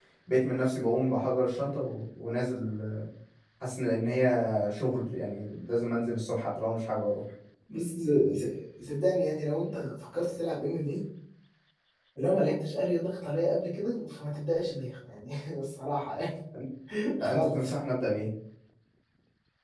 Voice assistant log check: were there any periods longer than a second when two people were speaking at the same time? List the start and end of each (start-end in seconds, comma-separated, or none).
none